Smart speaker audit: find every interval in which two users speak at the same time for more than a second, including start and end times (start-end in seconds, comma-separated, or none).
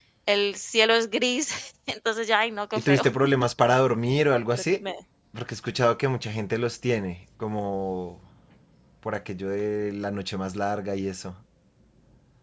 none